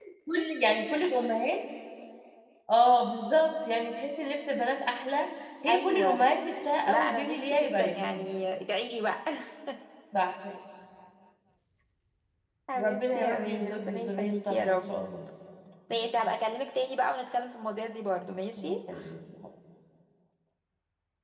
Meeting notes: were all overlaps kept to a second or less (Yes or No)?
No